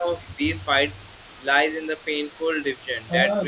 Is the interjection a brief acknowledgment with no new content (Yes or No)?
Yes